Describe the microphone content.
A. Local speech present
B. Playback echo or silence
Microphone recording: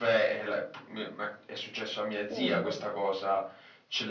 A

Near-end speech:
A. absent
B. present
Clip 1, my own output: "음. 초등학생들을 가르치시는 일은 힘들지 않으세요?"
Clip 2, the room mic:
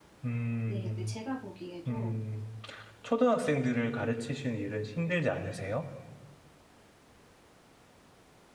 B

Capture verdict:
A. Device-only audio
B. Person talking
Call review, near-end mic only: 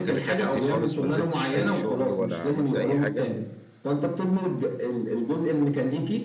B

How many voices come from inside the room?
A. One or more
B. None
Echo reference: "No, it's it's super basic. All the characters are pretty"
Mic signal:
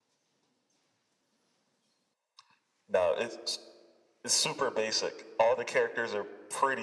B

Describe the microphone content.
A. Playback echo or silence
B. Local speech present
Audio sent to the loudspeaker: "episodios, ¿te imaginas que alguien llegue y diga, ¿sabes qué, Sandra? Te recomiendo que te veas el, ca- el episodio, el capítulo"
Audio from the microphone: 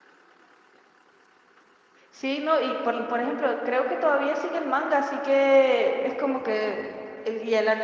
B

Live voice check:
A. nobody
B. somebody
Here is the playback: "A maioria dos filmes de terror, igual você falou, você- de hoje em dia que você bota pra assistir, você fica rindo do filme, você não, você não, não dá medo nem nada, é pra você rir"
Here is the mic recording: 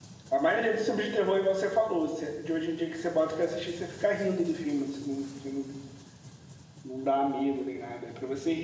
A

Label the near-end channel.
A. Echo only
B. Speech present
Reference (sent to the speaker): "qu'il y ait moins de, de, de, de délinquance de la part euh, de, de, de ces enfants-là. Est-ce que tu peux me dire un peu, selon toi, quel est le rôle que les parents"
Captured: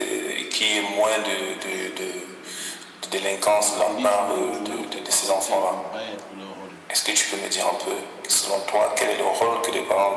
B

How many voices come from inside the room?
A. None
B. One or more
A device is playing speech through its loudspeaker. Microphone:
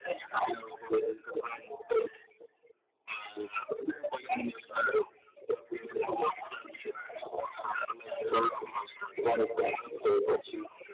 A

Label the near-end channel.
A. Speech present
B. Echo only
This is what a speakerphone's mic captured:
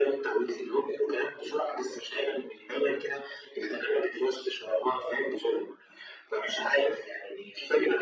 B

